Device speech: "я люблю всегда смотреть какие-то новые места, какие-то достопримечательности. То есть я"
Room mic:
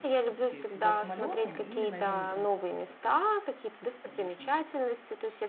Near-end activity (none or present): present